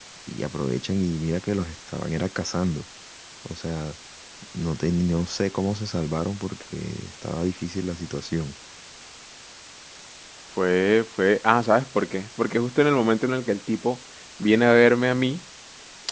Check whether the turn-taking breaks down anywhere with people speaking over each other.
No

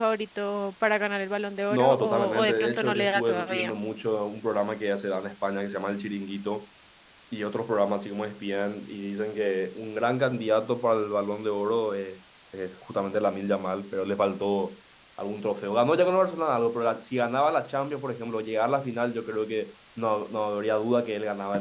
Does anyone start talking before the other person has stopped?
Yes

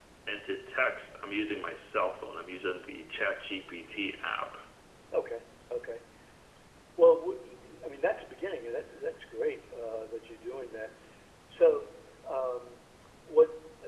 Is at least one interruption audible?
No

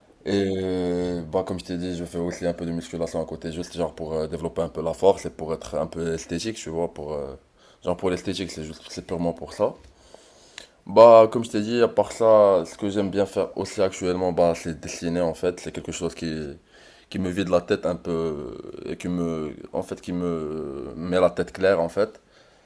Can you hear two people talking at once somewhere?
No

